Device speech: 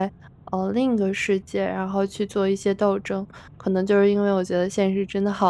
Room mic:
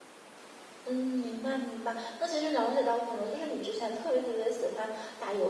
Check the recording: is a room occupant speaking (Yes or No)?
Yes